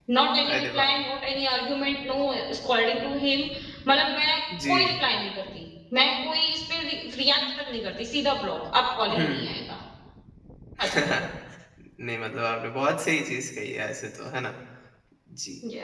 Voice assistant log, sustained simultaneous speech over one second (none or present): none